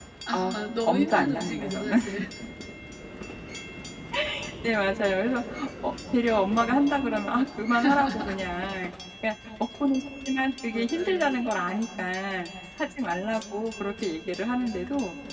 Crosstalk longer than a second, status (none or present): present